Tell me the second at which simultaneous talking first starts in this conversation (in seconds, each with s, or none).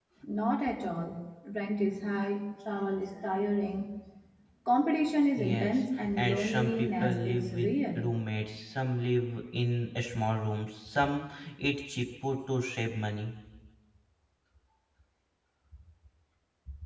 5.4 s